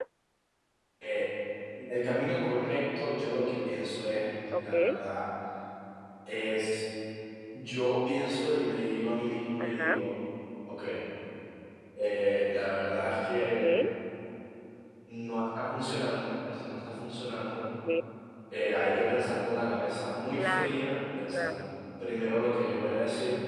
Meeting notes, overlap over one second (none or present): none